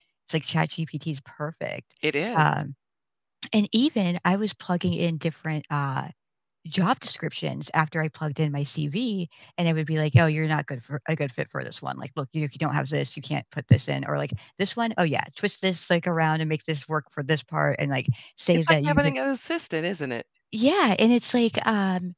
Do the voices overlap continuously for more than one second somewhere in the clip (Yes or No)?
No